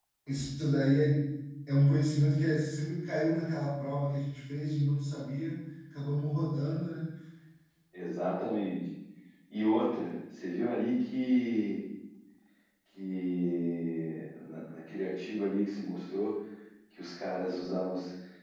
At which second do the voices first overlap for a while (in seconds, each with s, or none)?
none